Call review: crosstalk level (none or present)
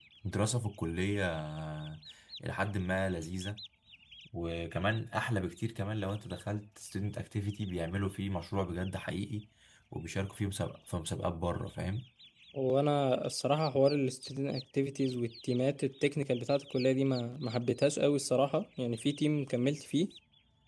none